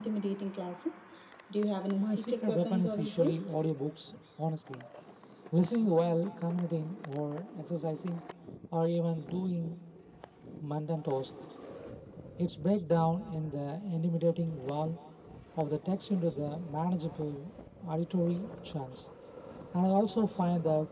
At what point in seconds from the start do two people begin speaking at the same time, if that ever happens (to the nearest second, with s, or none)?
2 s